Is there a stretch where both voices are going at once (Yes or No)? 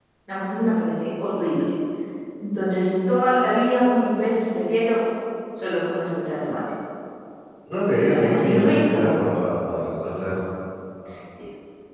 Yes